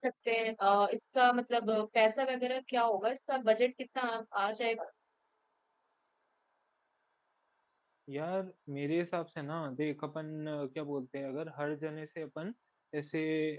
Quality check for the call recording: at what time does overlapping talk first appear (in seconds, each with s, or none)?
none